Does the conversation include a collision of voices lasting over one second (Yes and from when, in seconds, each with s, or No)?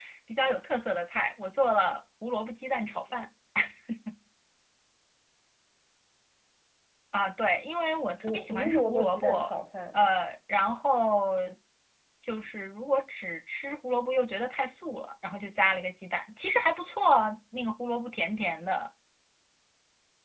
Yes, from 8.2 s